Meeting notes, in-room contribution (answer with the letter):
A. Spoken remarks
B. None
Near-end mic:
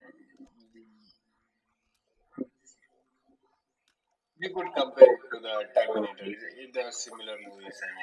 B